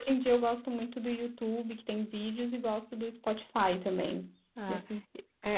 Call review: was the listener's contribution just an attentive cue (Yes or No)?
No